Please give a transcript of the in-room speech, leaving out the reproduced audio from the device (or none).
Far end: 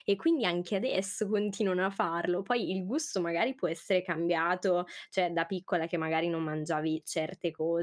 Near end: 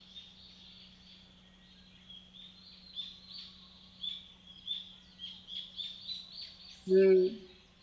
Mh.